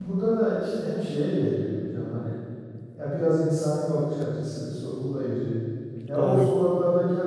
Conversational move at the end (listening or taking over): listening